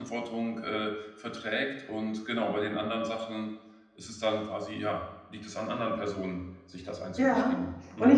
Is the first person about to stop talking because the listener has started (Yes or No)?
Yes